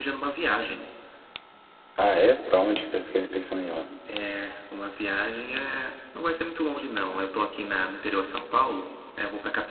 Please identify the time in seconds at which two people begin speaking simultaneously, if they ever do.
none

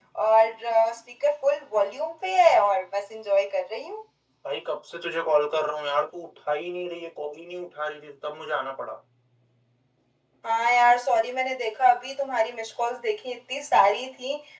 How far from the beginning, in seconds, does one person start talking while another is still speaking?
none

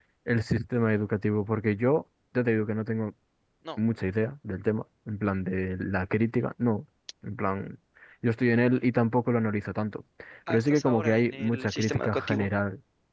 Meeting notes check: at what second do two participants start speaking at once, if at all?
11 s

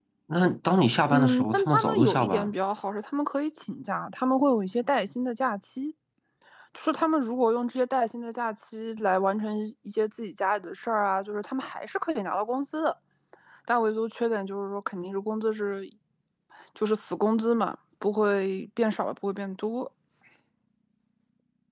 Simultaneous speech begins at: 1 s

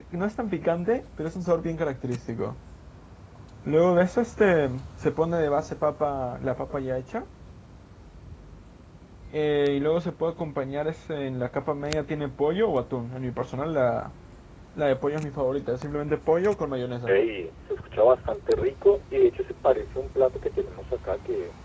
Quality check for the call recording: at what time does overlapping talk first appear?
none

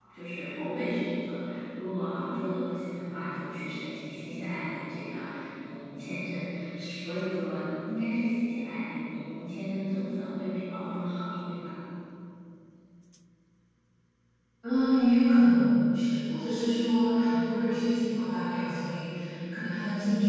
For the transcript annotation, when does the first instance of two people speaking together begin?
none

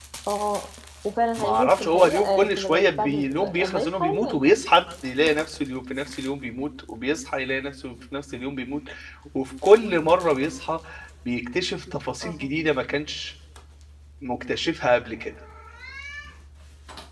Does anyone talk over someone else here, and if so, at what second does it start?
1 s

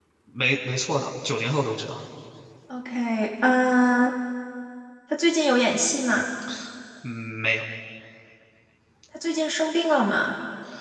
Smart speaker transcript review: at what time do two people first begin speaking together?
none

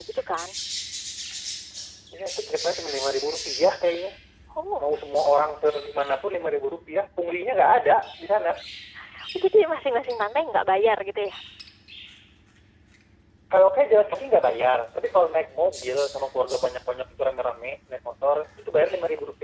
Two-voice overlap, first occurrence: none

